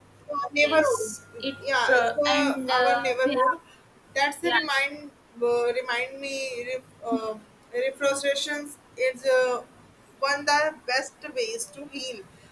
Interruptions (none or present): present